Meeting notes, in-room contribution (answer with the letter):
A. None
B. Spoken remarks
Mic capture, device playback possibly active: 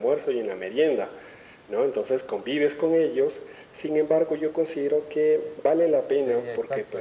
B